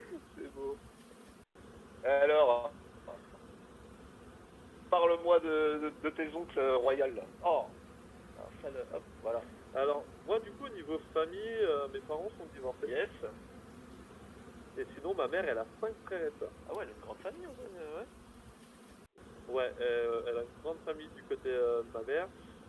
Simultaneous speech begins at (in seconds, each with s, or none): none